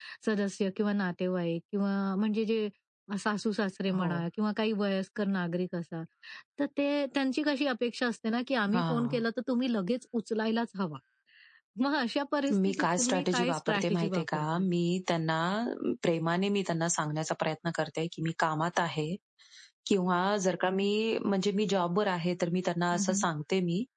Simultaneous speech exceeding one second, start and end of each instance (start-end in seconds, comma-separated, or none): 12.5-14.6